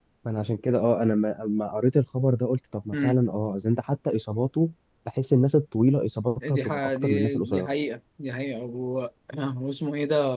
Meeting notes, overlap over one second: present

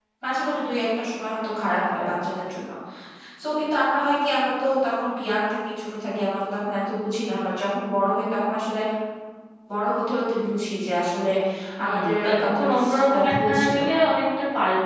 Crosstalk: present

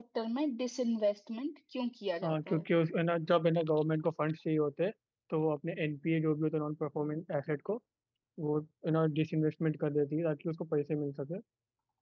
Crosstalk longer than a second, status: none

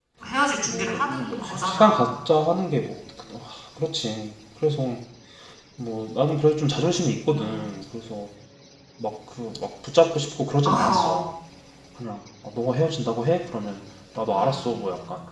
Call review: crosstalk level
present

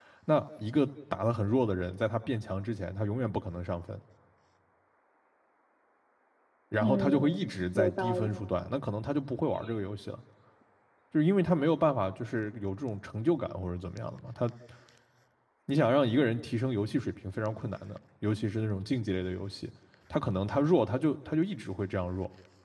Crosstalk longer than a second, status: present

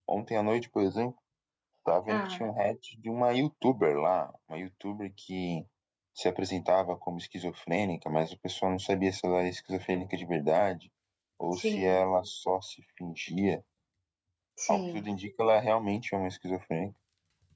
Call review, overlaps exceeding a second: none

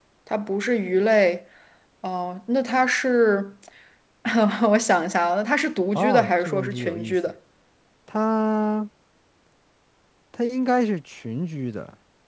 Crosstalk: present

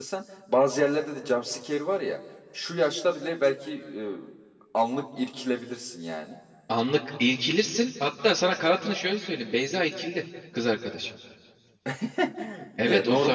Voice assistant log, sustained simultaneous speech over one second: none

